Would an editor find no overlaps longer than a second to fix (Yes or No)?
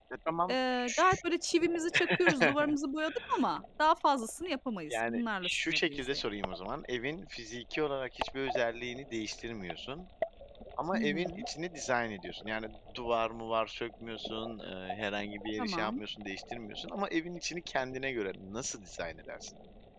No